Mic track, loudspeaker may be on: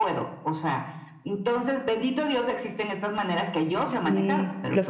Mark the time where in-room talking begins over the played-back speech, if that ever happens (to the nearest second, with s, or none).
4 s